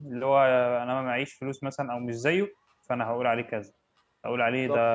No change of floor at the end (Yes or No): Yes